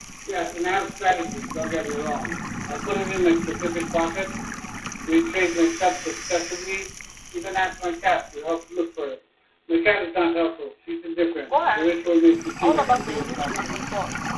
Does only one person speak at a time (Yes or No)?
No